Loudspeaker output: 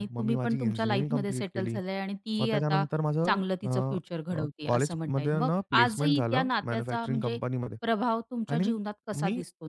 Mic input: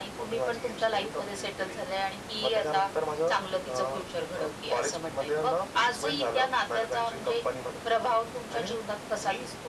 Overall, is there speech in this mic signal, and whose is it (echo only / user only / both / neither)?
echo only